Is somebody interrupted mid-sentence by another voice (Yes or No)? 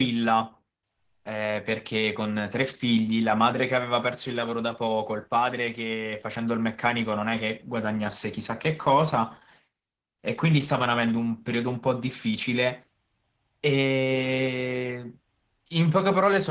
No